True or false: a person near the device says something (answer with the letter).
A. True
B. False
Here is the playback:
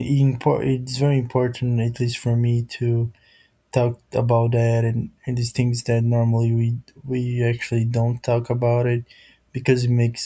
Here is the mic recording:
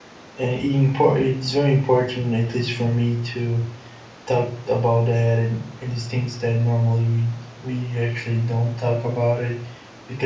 B